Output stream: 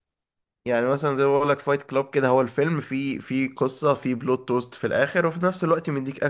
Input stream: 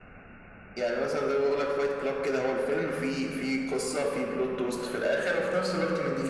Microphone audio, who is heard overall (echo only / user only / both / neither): echo only